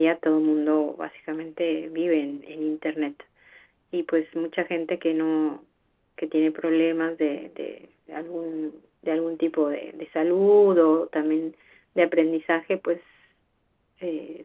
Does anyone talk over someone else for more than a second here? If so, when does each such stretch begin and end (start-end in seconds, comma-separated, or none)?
none